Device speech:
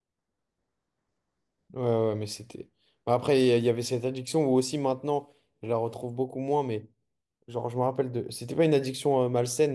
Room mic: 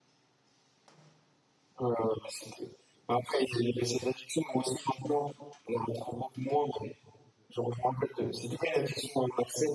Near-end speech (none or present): none